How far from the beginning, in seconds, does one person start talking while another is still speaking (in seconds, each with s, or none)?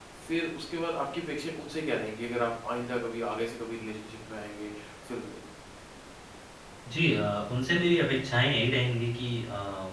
none